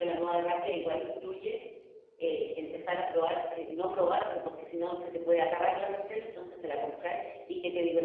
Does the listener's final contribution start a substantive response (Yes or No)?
No